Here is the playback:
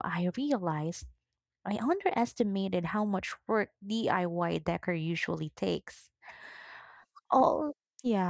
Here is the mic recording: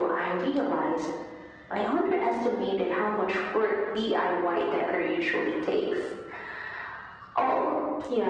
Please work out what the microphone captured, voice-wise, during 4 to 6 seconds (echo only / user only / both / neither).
echo only